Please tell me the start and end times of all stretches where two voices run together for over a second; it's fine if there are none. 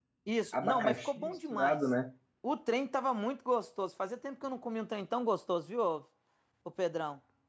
0.5-1.8

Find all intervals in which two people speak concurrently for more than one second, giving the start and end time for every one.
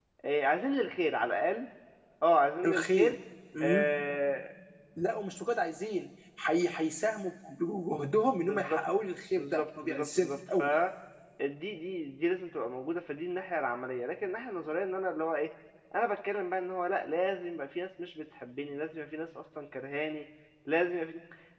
9.4-10.6

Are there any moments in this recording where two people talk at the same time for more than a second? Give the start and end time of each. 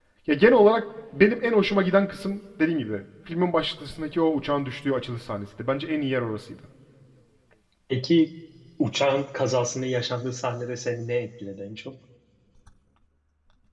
none

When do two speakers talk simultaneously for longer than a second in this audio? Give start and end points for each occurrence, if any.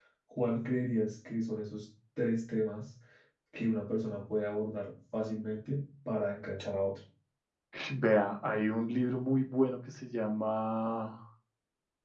none

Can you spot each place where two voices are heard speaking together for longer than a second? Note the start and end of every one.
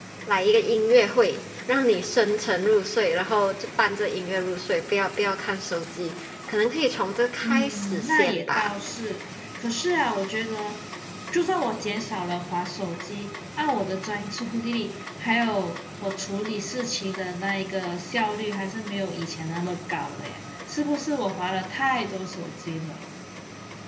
7.4-8.7

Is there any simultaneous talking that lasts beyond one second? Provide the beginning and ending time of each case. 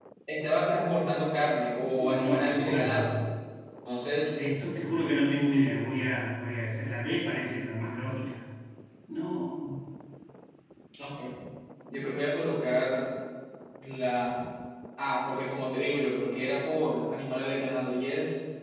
1.9-3.1

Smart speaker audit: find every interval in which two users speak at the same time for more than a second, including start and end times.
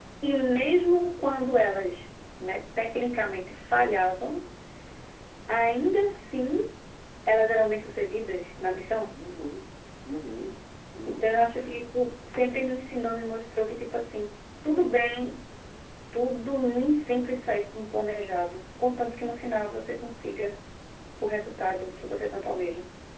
none

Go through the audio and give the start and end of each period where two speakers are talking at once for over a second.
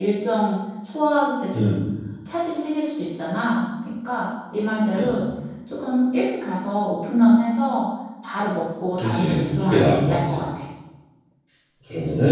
9.0-10.4

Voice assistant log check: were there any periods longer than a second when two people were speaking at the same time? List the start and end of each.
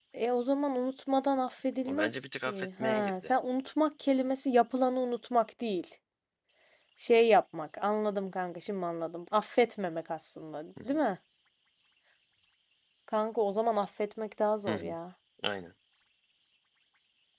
1.9-3.3

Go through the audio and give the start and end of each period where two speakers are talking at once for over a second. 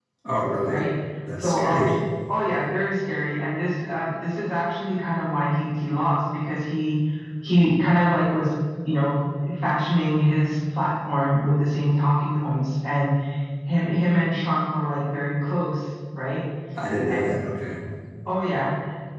none

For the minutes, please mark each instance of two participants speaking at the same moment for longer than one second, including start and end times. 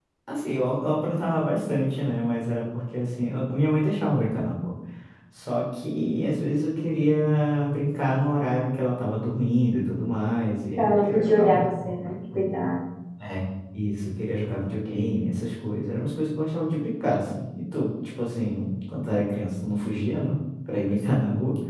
10.8-12.1

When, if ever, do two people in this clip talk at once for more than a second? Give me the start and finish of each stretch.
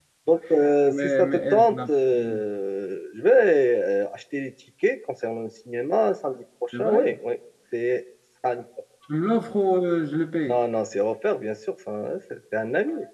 0.9-2.4

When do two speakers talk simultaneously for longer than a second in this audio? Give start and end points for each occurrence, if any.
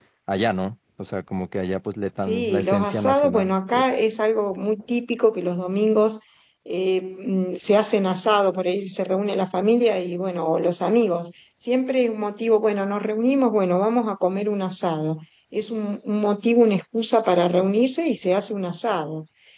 2.2-3.9

